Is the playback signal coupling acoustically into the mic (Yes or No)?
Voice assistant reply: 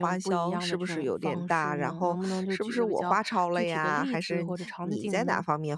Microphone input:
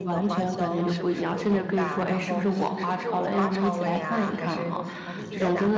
Yes